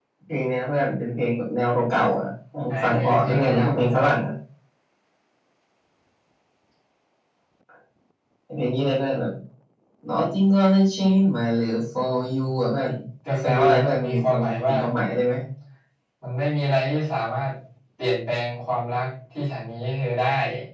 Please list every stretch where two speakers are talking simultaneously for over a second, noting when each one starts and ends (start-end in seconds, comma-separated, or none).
2.8-4.0, 13.4-14.8